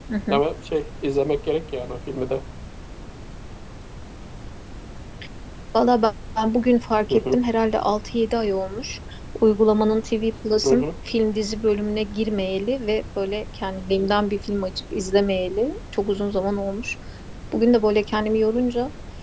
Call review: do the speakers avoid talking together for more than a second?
Yes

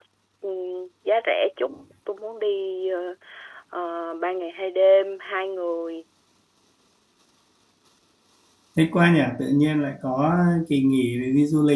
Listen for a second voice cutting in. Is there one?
No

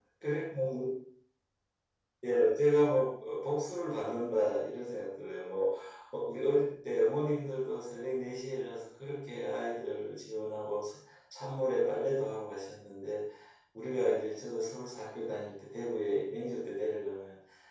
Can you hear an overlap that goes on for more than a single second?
No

